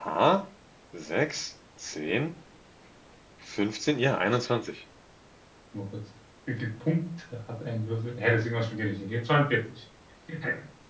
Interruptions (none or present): none